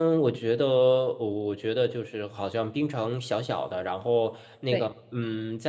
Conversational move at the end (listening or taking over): listening